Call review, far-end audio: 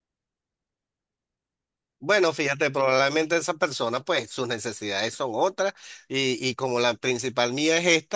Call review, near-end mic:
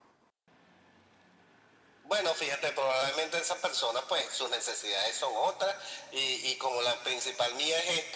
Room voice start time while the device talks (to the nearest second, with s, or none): none